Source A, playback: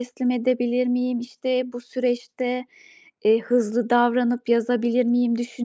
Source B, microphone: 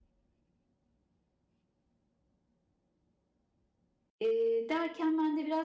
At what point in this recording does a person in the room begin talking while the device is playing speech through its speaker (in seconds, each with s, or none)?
4.2 s